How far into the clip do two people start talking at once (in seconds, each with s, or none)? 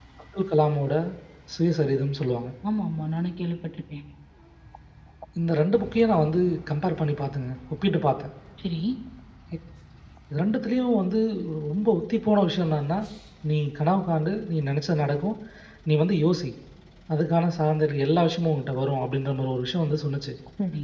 none